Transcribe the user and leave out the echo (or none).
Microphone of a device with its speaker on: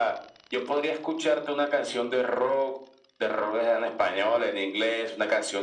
none